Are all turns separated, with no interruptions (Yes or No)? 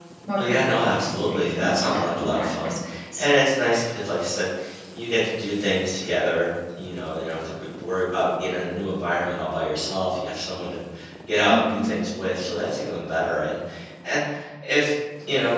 No